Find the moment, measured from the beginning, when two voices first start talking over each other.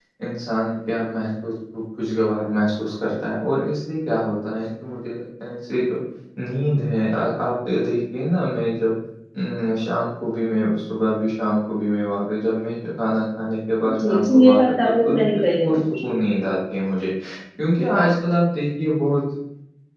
13.8 s

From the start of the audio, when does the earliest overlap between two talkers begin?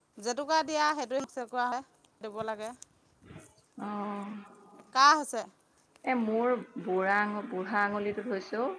none

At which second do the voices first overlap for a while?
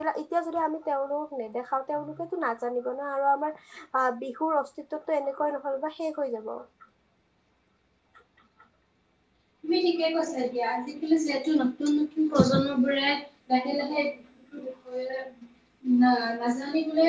none

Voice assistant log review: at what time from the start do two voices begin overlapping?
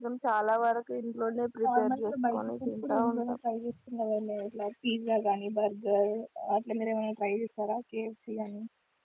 1.6 s

